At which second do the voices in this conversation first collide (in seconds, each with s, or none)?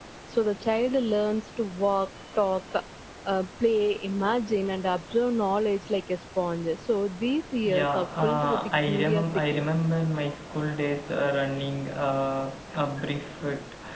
7.6 s